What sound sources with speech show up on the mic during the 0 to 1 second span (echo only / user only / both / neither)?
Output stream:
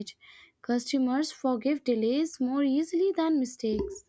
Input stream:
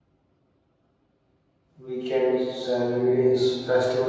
neither